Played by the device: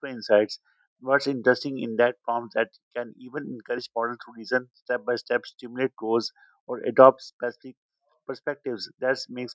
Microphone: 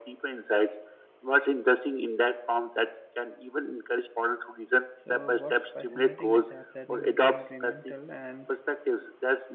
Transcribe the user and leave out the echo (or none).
So, what's fascinating is that learning is incremental and